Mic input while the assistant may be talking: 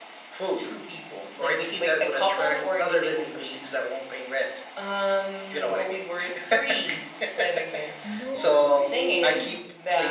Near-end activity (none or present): present